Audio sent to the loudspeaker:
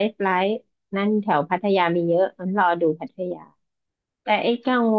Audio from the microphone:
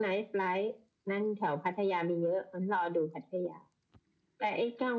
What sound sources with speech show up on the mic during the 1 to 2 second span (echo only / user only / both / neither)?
echo only